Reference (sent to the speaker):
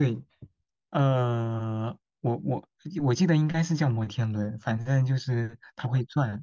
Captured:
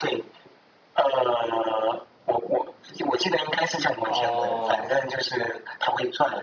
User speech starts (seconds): 4.0 s

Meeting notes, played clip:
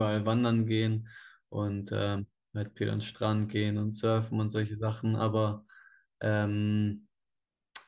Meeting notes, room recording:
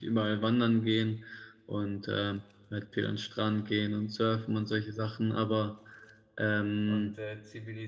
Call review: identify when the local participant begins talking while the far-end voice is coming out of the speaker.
6.8 s

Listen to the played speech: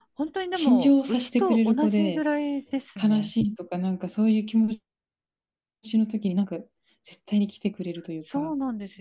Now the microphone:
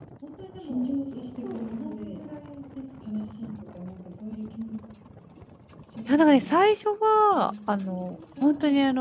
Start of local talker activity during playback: 6.1 s

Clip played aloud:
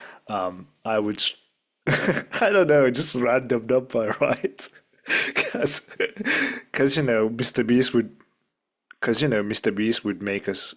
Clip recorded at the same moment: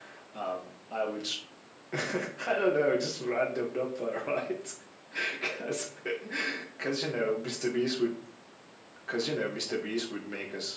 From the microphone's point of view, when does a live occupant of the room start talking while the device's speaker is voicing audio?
none

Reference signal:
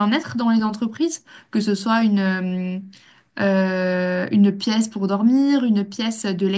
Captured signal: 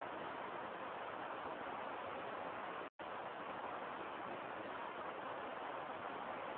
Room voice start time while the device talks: none

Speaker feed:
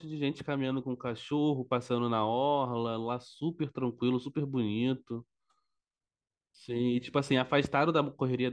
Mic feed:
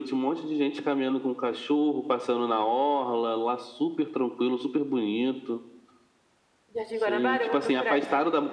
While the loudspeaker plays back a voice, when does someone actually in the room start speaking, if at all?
6.7 s

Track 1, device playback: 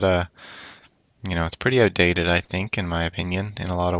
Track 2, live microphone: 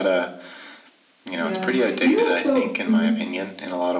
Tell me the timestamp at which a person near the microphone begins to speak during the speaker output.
1.4 s

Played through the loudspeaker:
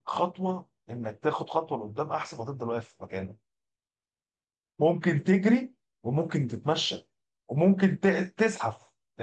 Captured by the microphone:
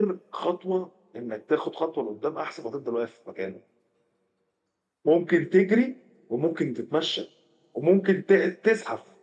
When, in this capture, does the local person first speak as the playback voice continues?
none

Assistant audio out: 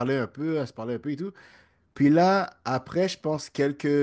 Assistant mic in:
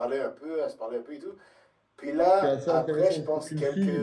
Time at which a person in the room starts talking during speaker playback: 2.4 s

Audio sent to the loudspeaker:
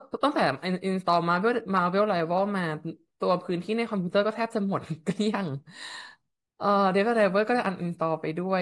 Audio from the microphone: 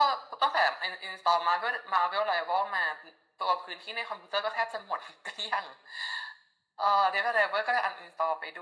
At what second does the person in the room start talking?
none

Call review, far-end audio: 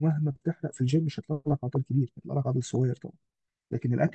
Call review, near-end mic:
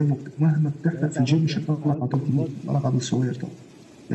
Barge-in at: 0.9 s

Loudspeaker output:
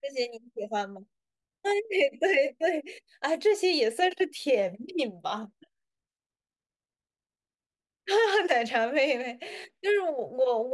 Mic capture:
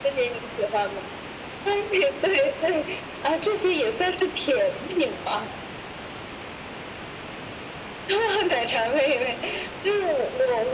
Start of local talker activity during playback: none

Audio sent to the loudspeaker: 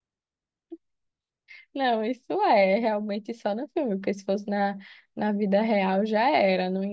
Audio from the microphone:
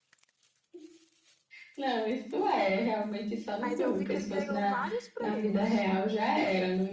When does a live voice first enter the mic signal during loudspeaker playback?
3.6 s

